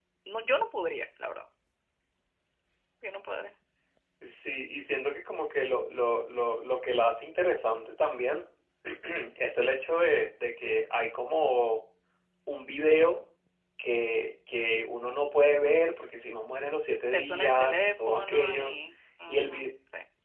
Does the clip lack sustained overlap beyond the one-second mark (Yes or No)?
No